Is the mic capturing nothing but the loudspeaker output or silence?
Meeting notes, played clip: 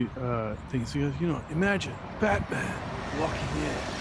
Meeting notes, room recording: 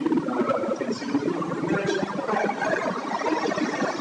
Yes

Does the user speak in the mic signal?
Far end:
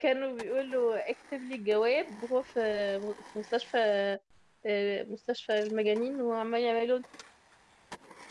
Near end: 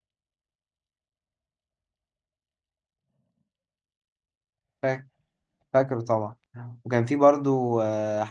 Yes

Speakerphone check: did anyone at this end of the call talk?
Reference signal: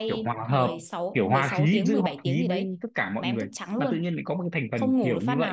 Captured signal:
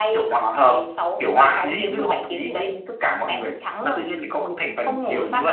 No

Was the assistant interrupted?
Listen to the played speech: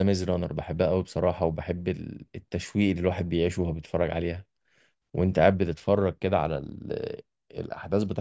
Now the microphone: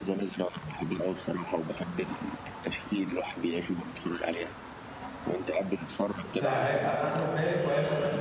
Yes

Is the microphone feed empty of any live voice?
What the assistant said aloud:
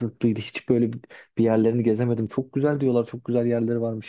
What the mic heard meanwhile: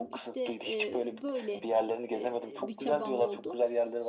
No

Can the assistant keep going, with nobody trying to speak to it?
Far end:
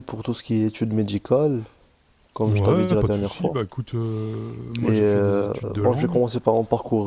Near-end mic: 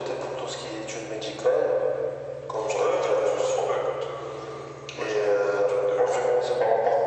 Yes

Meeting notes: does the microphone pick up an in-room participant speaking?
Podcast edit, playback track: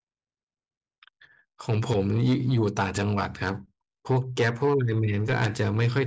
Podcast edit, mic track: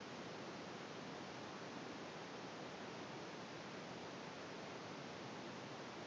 No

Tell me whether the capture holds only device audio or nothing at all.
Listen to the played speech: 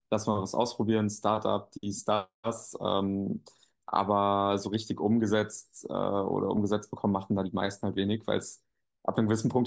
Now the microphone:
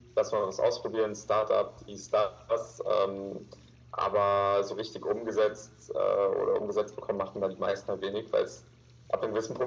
Yes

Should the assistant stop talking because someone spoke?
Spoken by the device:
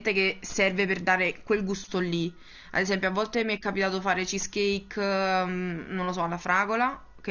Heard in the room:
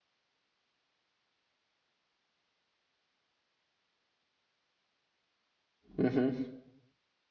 Yes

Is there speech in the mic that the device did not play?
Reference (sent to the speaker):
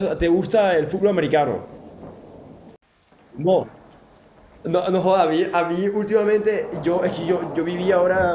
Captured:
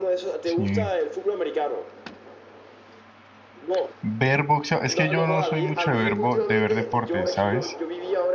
Yes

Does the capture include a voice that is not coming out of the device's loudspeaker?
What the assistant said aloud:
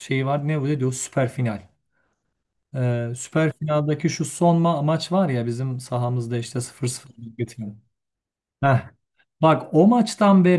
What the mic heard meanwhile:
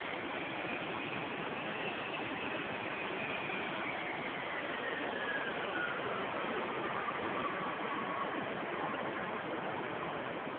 No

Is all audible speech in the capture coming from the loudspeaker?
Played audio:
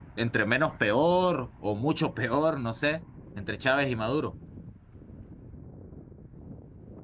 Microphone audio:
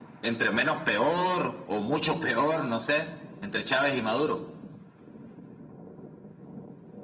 Yes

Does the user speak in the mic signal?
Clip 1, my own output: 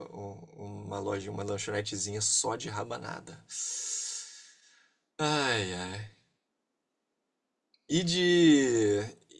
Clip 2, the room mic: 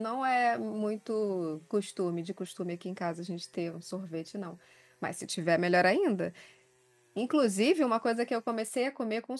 Yes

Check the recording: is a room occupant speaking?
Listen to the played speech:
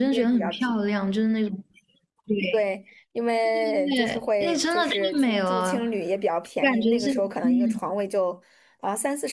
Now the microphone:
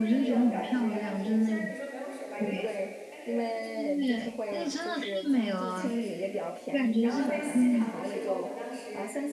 Yes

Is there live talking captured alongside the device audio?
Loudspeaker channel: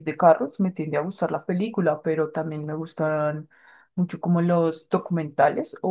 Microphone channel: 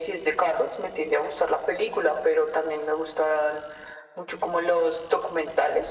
No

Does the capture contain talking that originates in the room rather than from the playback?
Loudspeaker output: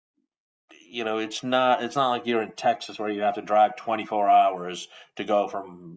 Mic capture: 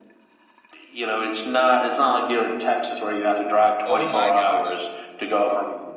Yes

